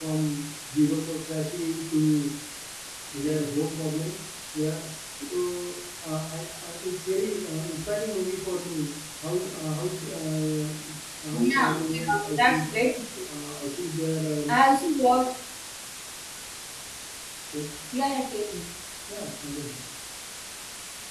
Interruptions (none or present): present